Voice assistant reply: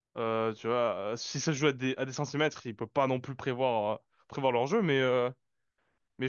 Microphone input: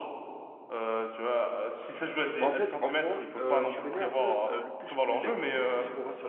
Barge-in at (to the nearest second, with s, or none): 2 s